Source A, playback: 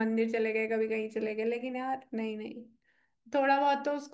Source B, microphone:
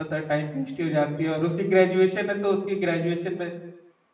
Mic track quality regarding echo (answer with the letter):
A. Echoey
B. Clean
B